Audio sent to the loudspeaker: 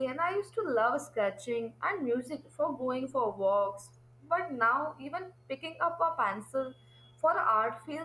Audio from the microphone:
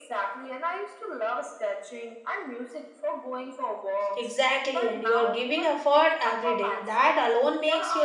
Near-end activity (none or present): present